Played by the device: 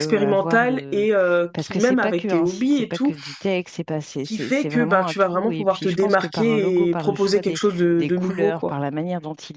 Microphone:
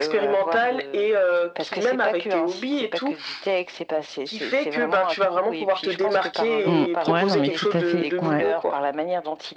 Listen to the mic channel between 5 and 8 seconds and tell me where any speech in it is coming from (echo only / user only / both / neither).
both